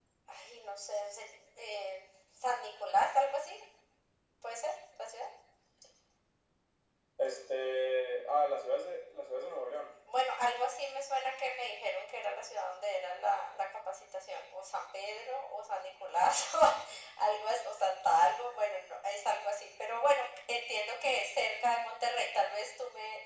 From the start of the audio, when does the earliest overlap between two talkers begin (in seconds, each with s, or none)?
none